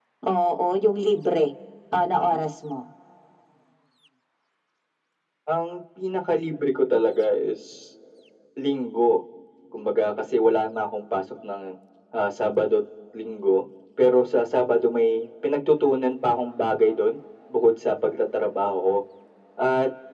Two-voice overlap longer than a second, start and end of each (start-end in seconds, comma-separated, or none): none